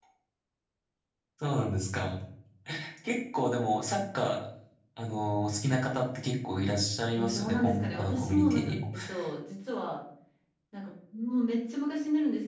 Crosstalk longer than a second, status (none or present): present